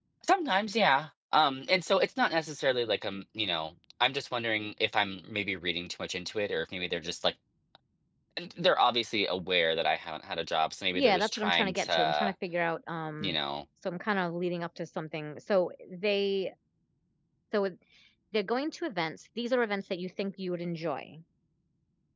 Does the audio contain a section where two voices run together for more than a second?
Yes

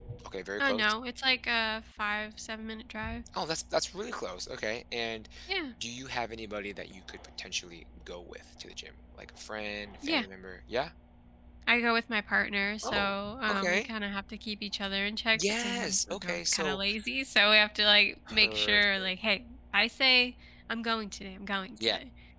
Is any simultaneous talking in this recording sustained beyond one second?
Yes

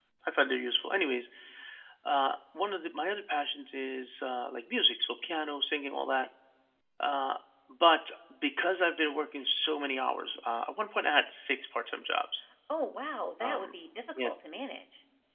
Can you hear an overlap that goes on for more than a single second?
No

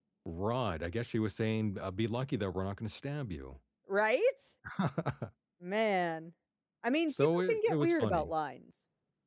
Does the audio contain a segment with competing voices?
Yes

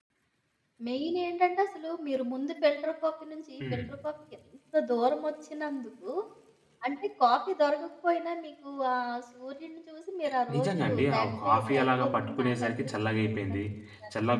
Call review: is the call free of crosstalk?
No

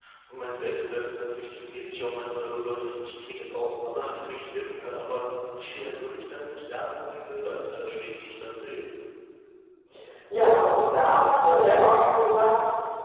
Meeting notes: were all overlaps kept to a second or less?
Yes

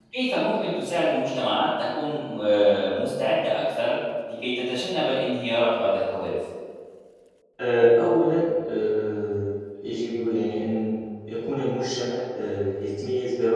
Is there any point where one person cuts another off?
No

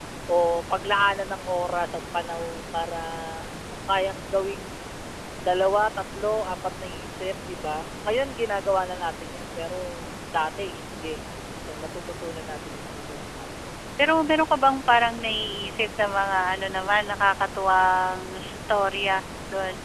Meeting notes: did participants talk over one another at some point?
No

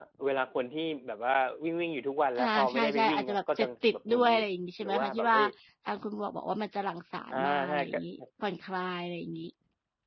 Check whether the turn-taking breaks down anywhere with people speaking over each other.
Yes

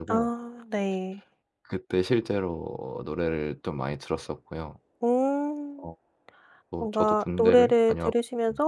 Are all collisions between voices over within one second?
No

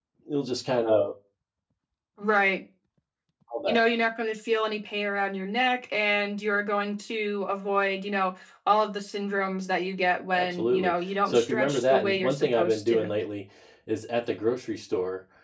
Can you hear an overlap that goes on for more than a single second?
Yes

